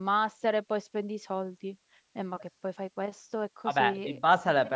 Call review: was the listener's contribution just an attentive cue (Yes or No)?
No